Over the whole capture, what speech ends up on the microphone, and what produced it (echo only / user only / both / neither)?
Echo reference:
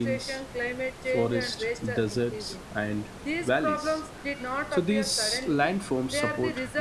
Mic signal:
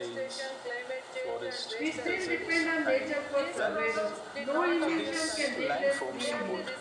both